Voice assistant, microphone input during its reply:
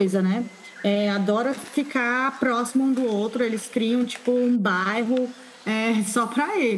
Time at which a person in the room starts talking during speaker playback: none

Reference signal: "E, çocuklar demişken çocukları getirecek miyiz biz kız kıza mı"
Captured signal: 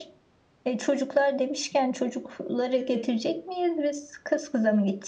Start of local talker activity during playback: 3 s

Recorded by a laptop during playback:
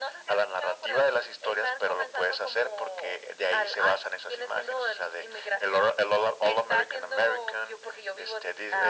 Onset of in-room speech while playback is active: none

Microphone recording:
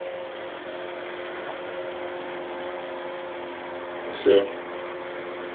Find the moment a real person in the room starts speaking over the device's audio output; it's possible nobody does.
4 s

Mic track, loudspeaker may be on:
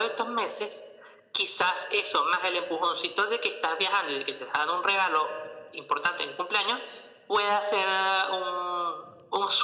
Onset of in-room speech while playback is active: none

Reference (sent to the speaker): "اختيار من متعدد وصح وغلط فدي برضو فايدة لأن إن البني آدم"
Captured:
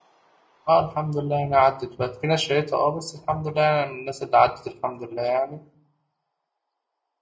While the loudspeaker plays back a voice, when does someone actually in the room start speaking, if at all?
1 s

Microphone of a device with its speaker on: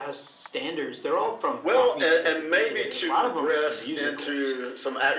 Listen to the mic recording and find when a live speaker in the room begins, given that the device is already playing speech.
none

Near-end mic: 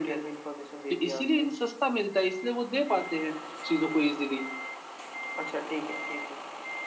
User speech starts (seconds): none

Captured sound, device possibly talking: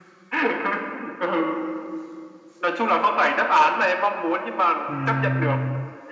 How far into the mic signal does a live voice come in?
5 s

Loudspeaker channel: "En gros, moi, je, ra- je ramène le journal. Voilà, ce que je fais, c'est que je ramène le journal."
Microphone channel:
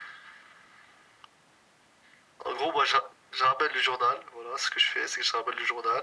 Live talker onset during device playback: none

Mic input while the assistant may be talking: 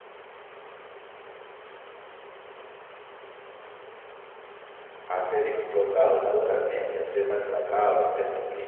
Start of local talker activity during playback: 5 s

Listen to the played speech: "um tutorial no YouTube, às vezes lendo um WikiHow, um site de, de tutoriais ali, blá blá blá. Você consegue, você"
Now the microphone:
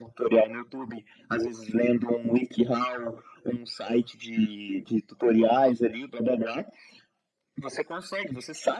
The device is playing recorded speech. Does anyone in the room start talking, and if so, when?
none

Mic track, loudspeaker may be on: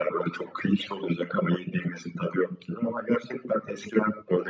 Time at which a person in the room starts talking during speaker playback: none

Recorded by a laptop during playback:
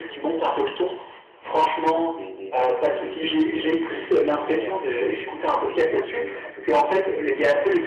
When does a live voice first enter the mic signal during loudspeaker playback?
1 s

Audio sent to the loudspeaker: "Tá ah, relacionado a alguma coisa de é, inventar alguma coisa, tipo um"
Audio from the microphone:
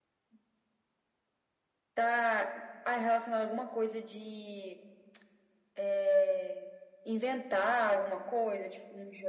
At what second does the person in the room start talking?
none

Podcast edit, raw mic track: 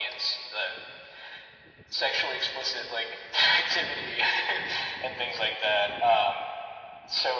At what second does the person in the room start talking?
none

